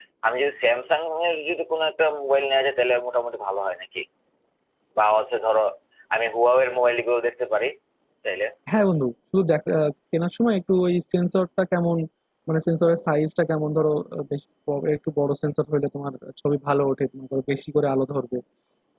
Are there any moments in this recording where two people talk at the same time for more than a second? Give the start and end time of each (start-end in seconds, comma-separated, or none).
none